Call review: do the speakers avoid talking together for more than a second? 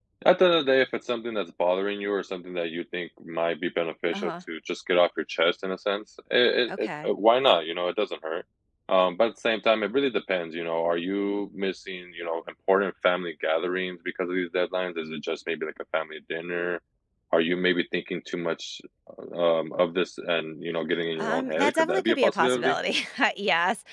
No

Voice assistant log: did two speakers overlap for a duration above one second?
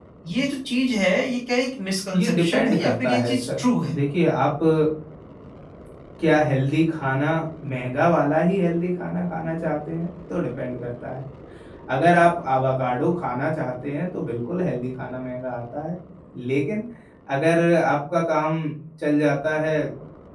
Yes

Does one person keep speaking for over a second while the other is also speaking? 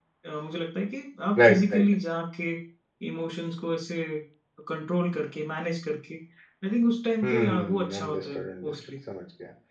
Yes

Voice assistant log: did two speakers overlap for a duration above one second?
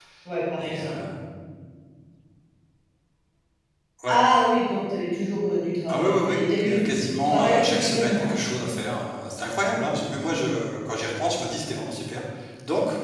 Yes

